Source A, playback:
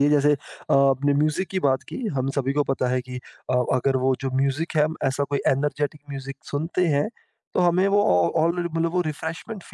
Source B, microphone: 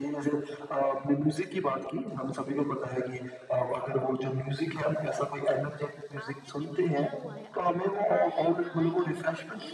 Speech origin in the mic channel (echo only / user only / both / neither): both